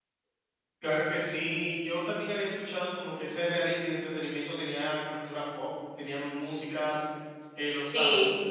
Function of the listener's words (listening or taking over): taking over